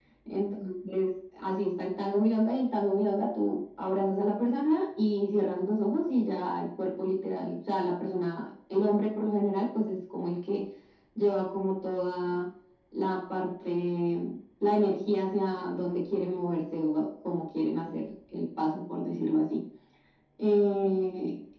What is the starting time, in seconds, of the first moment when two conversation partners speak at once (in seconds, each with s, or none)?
none